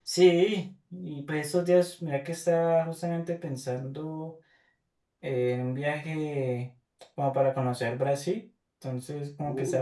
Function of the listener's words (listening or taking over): listening